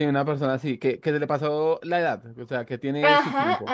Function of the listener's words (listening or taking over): taking over